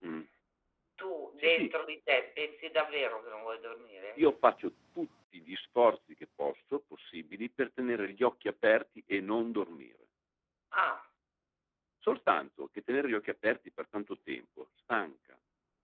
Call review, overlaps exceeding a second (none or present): none